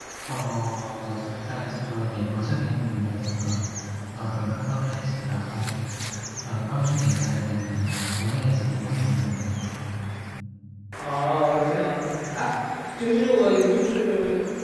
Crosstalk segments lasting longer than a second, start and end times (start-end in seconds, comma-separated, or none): none